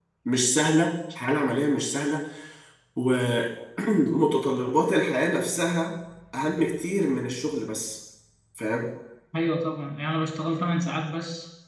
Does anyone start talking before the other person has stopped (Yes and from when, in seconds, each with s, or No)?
No